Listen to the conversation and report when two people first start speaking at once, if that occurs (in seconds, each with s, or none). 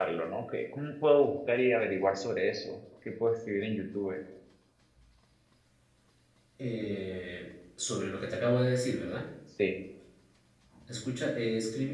none